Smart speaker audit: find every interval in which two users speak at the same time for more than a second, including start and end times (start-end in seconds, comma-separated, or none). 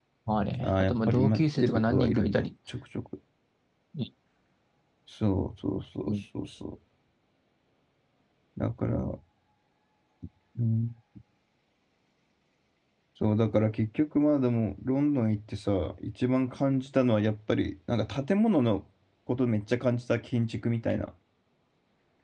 0.6-2.5